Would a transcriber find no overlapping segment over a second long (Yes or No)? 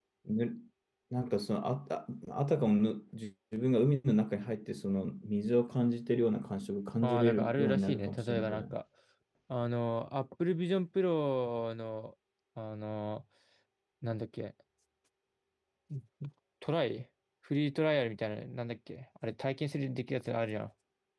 No